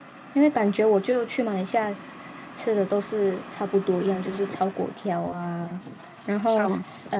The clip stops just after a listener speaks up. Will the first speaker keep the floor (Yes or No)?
Yes